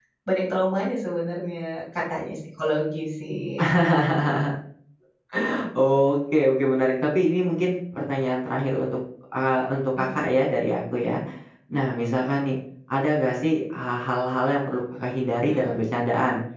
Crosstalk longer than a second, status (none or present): none